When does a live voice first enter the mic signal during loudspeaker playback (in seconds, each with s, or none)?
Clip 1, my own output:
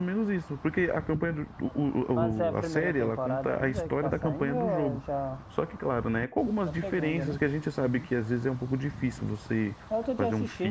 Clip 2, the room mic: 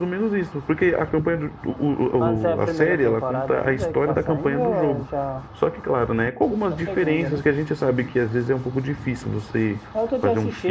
none